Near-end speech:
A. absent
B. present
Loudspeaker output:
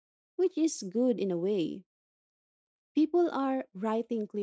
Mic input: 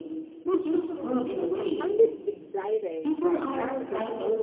B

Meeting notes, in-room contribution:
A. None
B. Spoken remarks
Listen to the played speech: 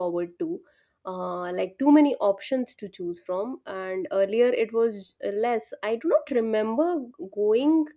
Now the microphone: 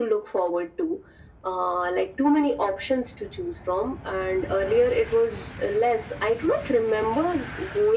A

